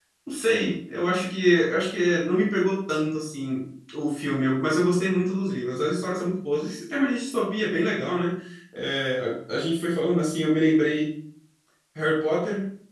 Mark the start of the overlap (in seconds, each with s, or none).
none